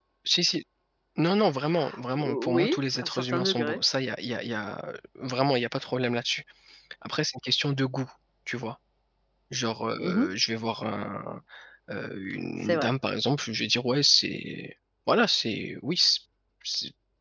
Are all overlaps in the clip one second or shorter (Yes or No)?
No